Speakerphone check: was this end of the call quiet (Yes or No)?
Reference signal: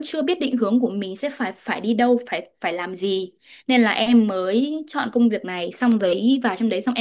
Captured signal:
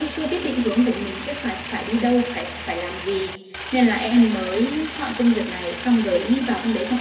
Yes